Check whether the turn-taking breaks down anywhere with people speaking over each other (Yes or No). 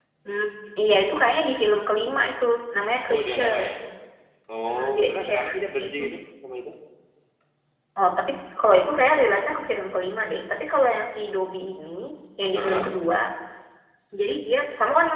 Yes